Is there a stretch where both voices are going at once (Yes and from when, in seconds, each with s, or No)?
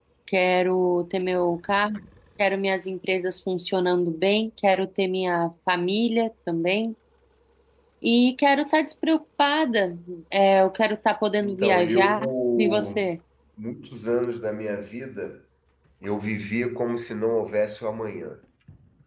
Yes, from 11.4 s